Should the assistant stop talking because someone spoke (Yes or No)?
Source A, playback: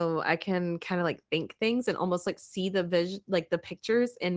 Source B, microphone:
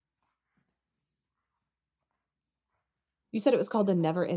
Yes